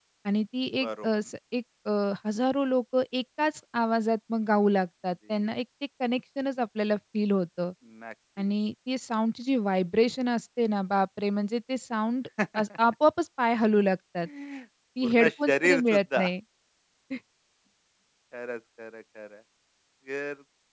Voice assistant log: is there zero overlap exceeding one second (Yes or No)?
No